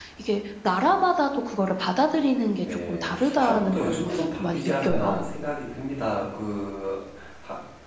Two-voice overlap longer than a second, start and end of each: 2.9-5.3

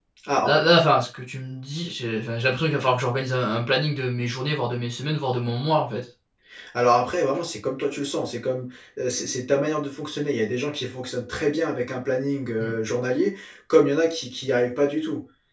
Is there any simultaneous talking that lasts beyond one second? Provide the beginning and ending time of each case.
none

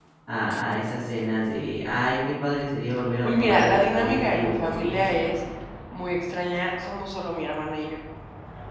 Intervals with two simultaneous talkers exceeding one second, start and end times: 3.2-5.2

